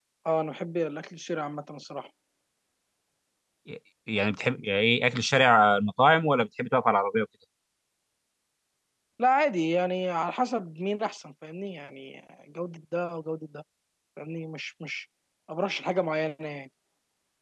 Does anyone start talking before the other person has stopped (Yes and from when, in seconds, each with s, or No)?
No